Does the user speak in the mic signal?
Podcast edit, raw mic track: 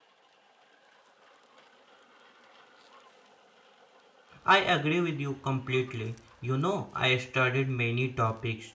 Yes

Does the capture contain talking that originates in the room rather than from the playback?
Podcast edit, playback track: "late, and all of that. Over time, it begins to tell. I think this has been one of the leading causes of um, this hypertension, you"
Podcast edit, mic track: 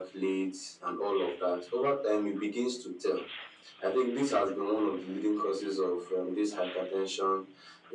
No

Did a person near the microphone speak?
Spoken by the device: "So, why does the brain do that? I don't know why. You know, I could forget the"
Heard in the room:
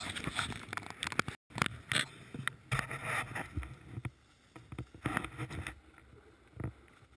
No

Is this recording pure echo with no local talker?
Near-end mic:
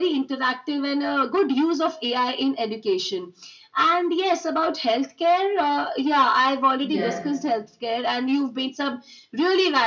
No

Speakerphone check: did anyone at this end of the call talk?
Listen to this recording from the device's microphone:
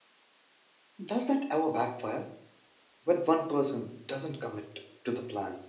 Yes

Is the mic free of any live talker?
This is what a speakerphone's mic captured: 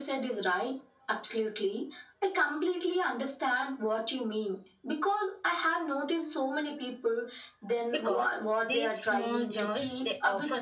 No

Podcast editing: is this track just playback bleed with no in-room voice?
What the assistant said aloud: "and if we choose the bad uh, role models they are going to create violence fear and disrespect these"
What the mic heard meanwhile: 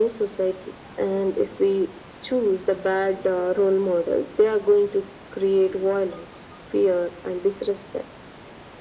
Yes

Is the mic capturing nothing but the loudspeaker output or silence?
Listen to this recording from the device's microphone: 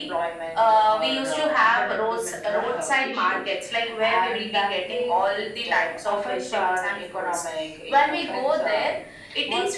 Yes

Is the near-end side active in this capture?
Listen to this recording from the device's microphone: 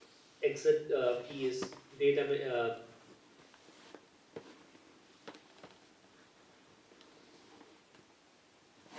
Yes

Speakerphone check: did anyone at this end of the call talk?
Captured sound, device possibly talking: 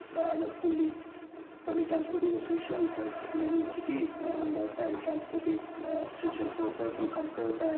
No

